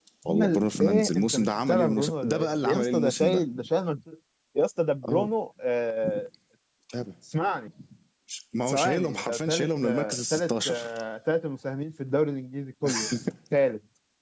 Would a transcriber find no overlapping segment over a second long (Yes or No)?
No